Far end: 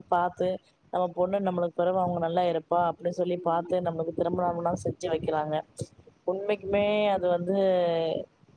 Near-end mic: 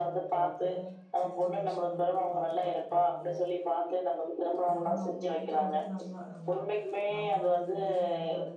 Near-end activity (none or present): present